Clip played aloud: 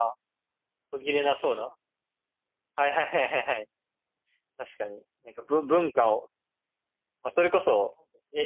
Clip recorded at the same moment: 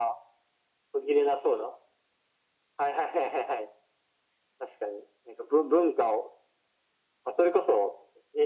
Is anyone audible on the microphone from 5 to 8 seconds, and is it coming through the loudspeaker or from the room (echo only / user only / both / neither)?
echo only